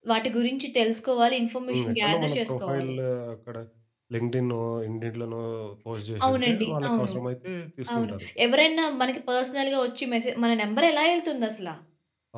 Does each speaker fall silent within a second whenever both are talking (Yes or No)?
No